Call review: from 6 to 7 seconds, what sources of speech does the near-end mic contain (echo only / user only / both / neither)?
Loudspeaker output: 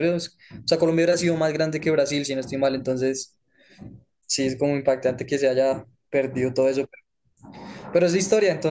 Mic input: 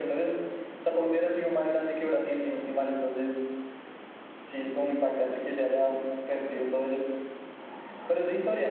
echo only